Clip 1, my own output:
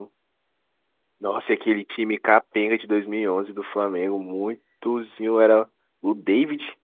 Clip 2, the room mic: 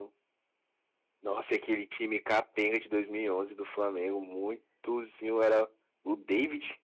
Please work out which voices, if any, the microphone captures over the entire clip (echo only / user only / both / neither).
echo only